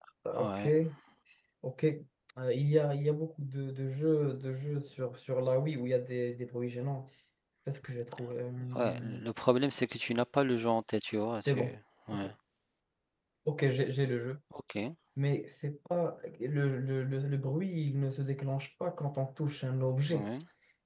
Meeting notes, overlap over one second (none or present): none